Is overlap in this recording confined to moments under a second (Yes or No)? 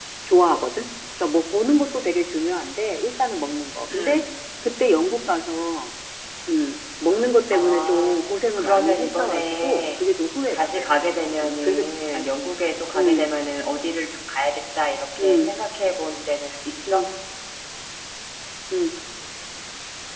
No